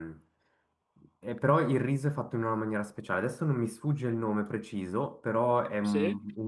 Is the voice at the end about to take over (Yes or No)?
No